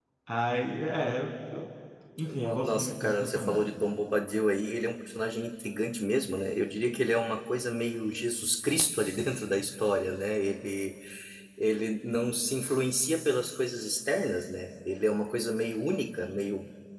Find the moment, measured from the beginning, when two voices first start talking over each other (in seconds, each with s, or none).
2.3 s